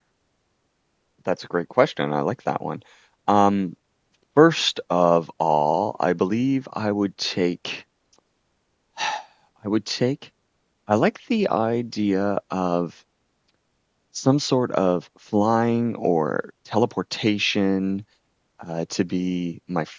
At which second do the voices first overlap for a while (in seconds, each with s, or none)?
none